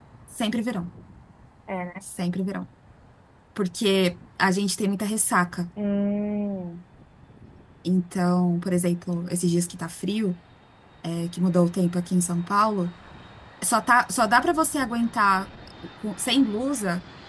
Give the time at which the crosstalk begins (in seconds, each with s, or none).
none